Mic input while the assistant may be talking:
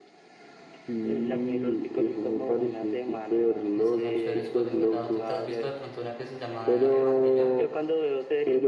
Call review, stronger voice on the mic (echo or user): echo